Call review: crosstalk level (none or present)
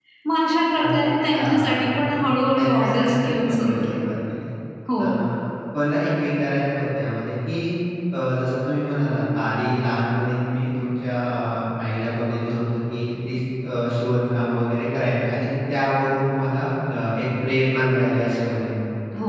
present